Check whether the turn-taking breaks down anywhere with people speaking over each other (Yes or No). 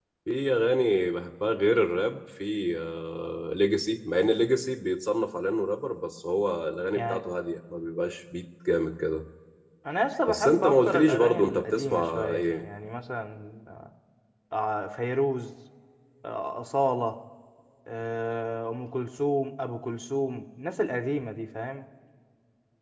Yes